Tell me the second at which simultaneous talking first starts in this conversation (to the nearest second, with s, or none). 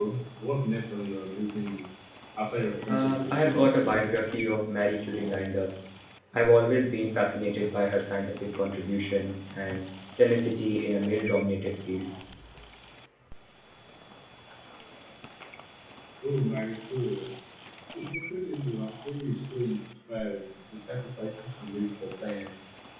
3 s